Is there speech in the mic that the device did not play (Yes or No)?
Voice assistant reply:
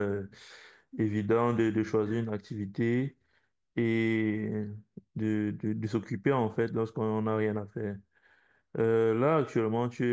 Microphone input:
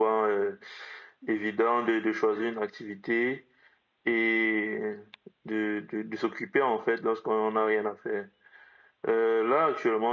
No